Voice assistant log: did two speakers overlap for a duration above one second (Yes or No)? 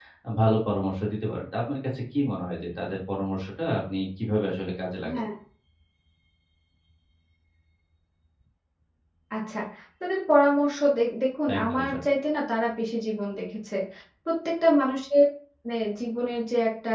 No